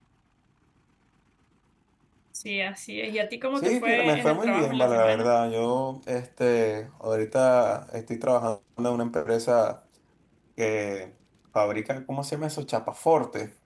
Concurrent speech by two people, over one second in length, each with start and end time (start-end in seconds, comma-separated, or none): 3.6-5.3